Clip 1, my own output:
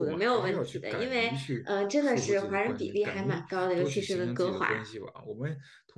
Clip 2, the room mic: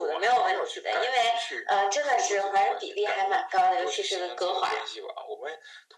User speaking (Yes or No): No